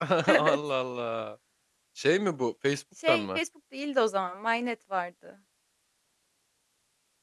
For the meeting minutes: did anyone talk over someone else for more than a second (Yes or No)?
No